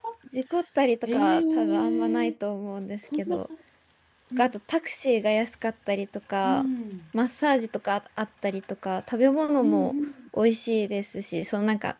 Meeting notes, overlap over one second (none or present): present